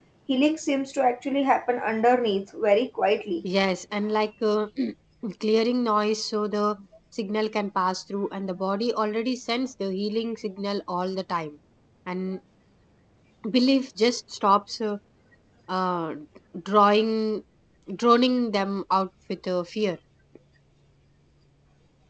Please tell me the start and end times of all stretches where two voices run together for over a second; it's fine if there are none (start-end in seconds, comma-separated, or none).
none